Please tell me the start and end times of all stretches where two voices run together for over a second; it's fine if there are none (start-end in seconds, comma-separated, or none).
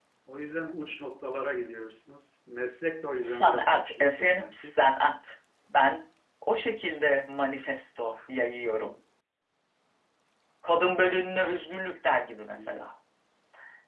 3.2-4.8